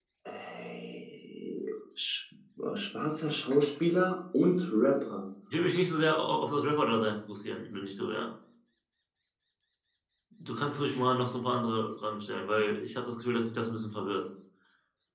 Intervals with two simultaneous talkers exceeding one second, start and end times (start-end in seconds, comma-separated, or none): none